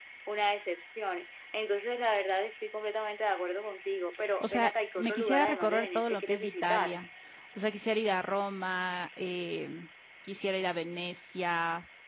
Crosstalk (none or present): present